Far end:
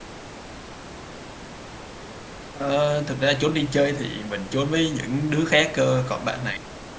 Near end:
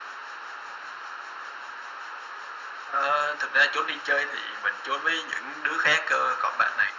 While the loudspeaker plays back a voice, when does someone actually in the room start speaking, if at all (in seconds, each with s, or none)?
none